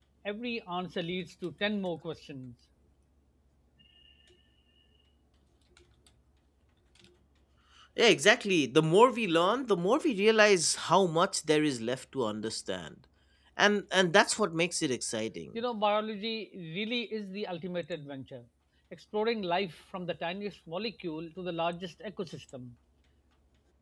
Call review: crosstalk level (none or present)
none